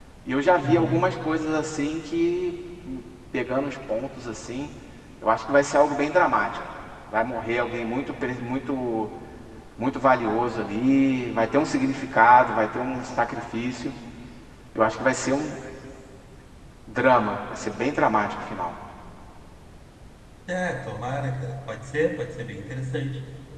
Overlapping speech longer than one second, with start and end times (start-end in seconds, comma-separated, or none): none